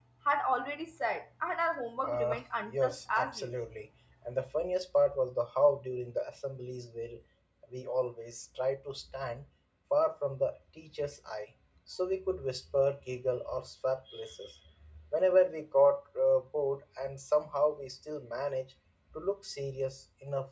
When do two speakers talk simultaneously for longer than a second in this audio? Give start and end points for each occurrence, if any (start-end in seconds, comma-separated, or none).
2.0-3.5